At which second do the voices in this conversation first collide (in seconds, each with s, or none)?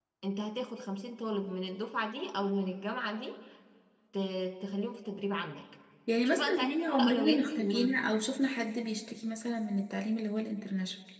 6.2 s